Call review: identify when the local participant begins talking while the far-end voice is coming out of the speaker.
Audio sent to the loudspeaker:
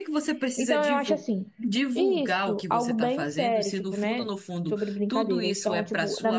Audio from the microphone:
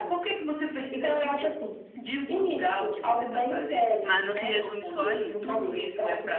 4.0 s

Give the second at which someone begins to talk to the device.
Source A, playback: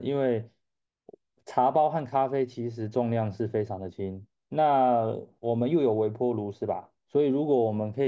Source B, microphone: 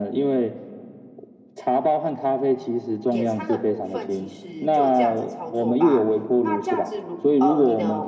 3.0 s

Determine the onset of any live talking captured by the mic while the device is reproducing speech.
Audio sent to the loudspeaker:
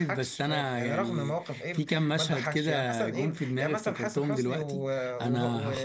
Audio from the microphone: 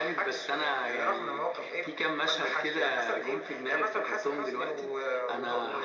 none

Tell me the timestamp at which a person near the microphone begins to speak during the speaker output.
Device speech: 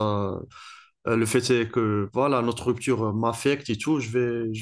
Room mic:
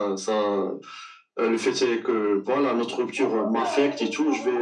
3.1 s

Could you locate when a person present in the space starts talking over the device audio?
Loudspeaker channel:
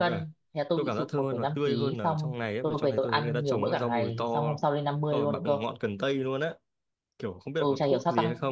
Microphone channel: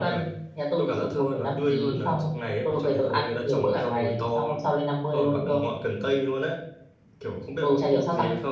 none

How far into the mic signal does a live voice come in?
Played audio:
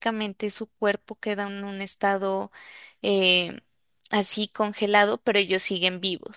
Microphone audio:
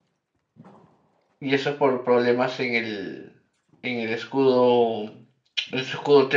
1.4 s

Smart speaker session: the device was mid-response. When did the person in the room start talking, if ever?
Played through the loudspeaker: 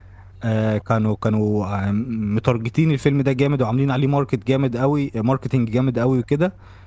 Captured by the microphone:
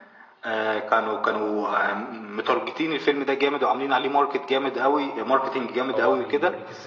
5.9 s

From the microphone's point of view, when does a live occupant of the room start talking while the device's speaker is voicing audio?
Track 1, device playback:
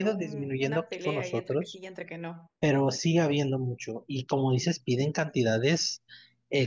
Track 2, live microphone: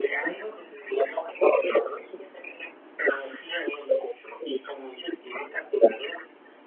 none

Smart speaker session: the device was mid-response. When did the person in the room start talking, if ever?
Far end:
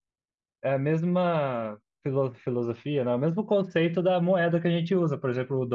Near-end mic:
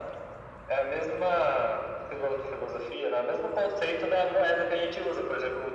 none

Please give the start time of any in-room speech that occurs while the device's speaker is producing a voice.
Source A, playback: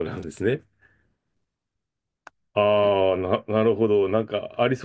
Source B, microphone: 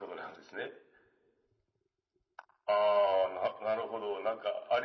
none

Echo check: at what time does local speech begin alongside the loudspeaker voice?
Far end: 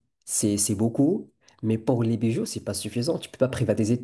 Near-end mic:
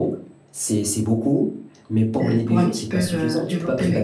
2.2 s

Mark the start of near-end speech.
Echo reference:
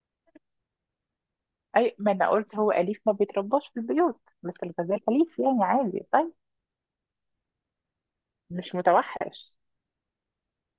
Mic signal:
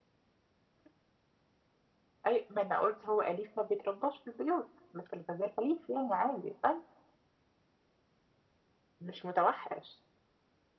none

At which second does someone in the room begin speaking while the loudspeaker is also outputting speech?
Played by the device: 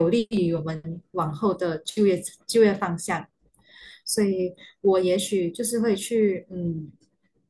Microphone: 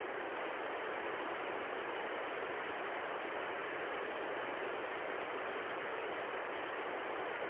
none

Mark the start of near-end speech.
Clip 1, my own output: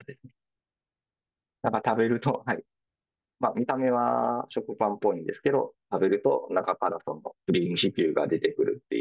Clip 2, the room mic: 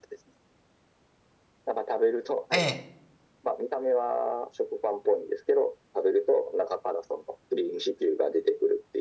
2.5 s

